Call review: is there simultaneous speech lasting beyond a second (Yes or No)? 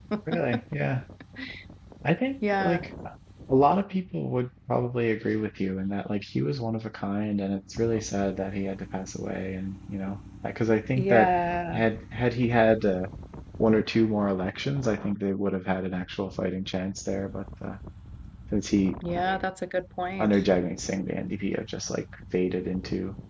No